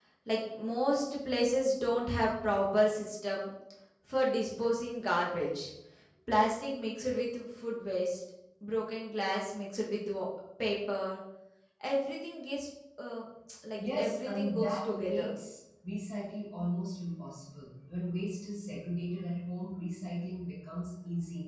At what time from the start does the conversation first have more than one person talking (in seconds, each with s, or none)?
13.9 s